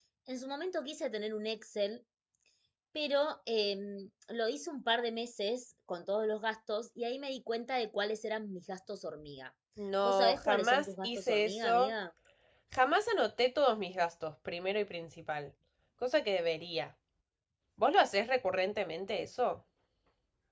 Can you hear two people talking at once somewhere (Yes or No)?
Yes